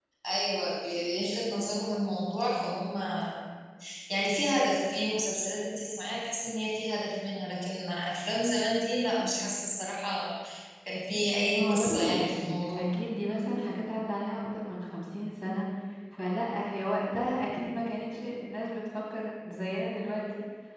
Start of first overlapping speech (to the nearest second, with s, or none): 11 s